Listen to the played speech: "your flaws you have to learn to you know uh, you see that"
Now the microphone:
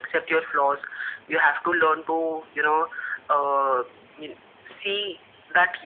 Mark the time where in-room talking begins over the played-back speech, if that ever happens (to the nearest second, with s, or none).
none